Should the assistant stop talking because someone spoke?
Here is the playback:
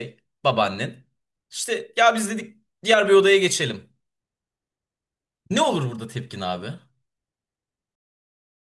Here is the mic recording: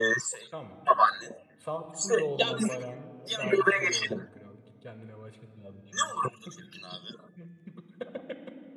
Yes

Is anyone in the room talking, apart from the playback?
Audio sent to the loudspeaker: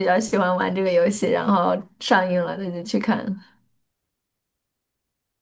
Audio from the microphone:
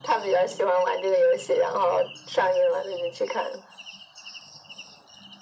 No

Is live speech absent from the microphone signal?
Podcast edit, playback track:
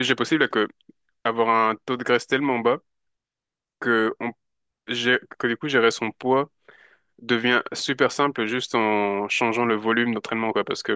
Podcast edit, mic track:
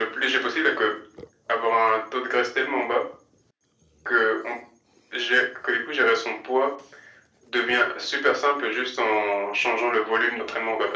Yes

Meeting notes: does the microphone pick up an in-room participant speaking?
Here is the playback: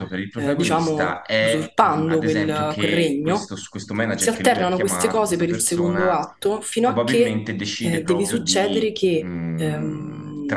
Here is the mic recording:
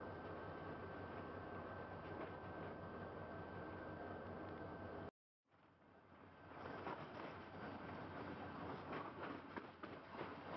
No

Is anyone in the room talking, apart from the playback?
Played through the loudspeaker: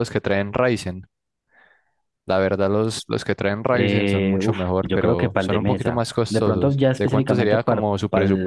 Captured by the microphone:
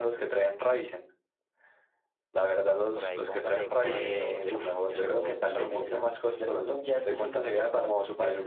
Yes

